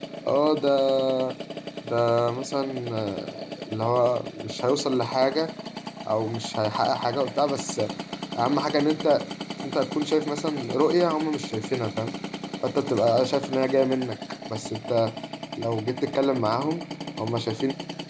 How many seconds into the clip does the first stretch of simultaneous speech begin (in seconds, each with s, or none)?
none